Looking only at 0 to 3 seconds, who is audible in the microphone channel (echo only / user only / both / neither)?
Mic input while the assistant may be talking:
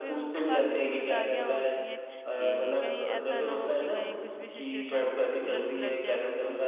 both